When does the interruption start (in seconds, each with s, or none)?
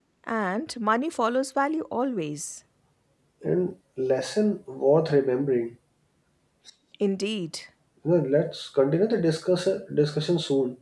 none